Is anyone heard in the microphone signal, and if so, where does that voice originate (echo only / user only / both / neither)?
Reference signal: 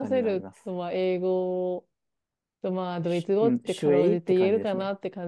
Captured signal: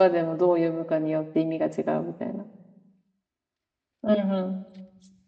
user only